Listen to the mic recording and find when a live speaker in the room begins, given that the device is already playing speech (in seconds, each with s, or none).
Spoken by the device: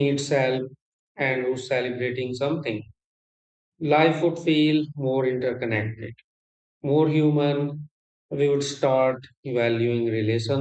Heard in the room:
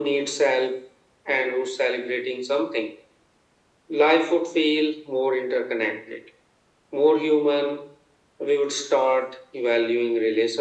none